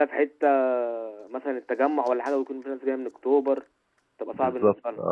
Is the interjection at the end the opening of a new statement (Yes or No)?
Yes